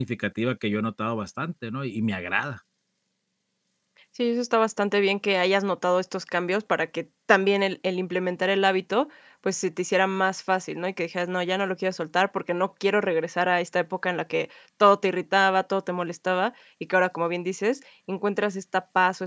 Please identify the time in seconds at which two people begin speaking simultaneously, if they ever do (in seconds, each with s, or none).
none